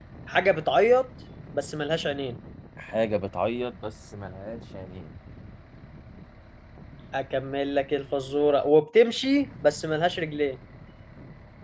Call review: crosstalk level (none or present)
none